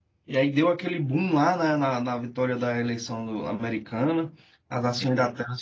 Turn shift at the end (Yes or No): No